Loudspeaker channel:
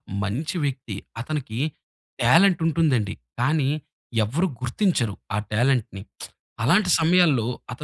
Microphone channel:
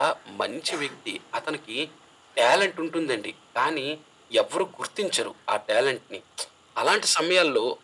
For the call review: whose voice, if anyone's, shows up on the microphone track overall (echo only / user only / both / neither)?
echo only